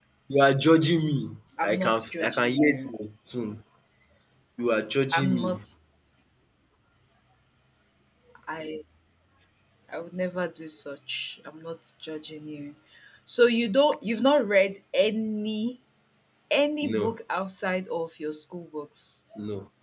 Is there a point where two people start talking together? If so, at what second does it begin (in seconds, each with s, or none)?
1.6 s